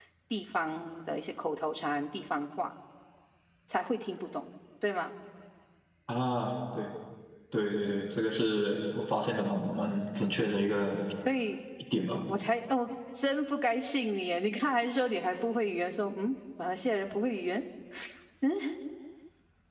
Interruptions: none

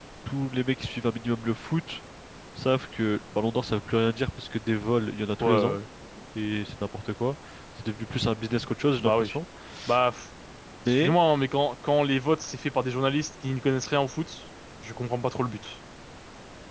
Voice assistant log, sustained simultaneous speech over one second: none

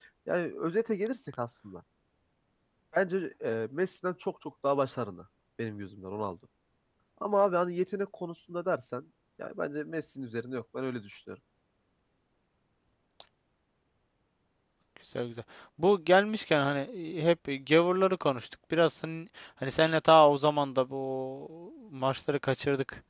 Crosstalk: none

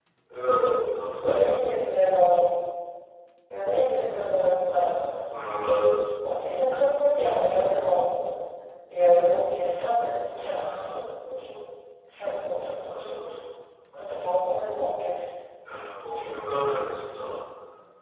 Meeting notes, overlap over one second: none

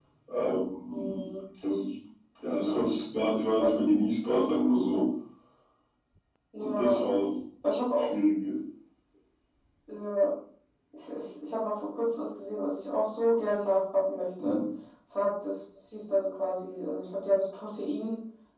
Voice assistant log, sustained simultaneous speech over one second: none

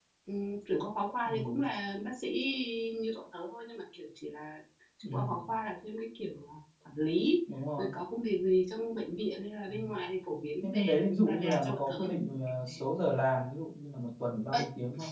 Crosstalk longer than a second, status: present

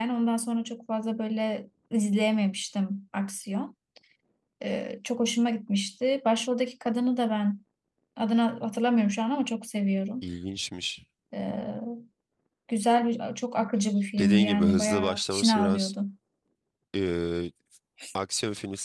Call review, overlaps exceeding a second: present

